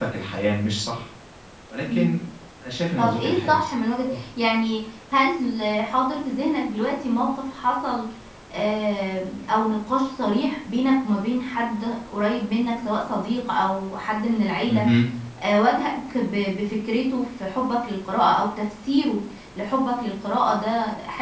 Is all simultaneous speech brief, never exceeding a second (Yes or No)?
No